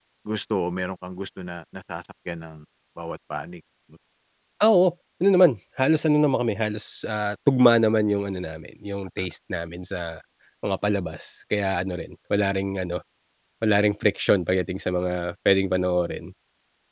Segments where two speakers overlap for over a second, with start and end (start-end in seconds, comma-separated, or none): none